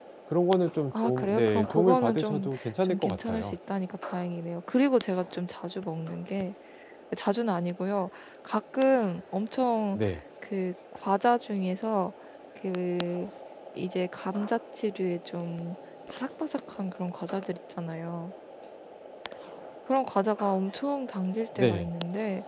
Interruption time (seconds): 1 s

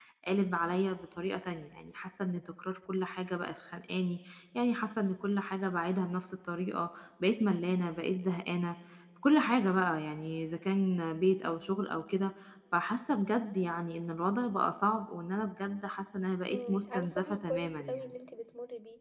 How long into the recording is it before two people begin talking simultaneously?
16 s

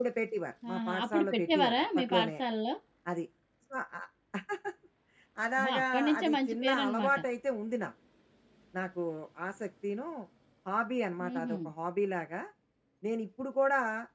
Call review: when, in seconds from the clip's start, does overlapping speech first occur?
1 s

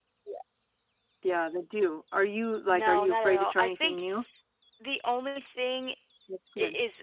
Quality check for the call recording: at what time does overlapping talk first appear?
3 s

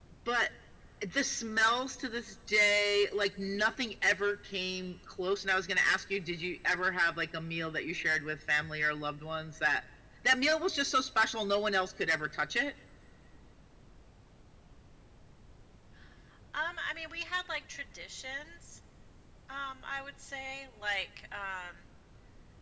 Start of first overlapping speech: none

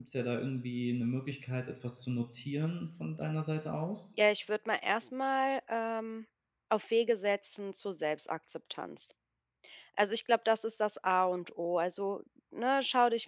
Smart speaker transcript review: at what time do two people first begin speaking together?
none

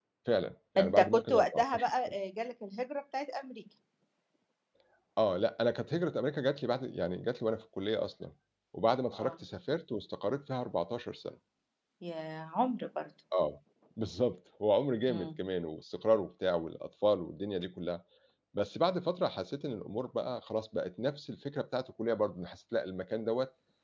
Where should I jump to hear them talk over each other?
1 s

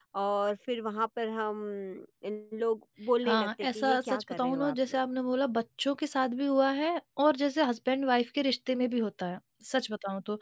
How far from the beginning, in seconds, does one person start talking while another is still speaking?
3 s

